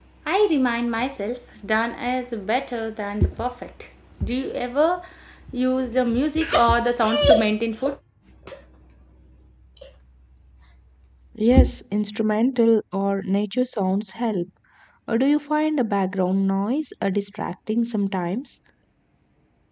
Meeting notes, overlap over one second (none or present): none